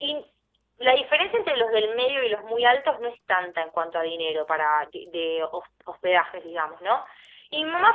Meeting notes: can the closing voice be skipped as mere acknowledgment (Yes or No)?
Yes